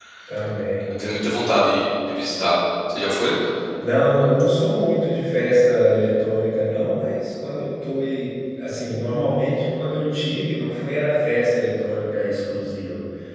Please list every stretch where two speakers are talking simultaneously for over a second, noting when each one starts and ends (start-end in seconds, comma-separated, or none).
none